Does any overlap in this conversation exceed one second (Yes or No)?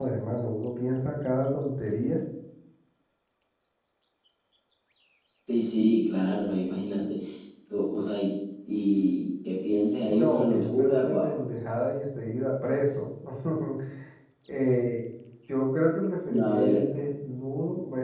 Yes